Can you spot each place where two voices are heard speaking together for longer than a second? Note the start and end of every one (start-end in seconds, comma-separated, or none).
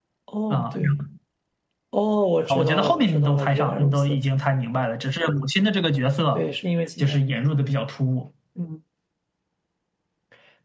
2.5-4.2